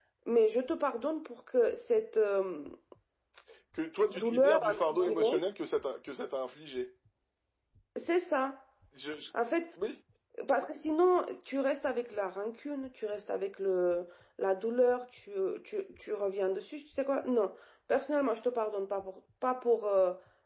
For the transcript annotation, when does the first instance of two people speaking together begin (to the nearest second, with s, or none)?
4 s